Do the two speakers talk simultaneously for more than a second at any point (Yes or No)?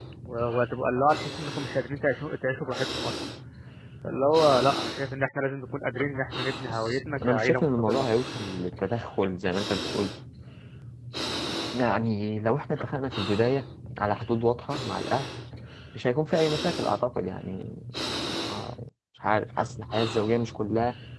Yes